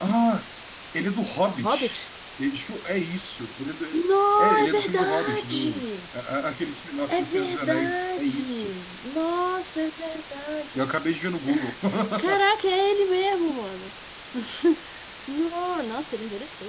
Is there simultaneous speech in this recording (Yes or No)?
Yes